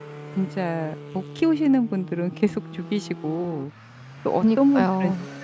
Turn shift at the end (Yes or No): No